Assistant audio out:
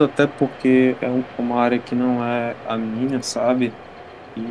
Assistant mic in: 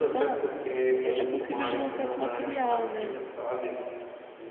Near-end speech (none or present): present